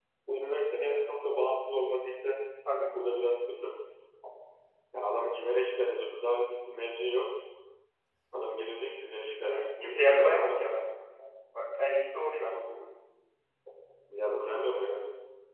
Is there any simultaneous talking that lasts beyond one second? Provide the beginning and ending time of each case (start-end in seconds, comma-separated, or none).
9.5-10.8